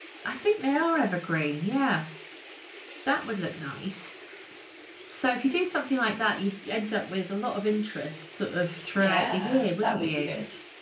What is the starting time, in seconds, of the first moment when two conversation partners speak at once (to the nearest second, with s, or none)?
9 s